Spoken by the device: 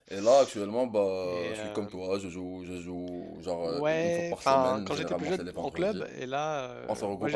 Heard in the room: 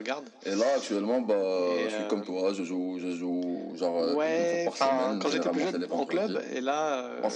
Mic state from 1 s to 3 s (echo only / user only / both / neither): echo only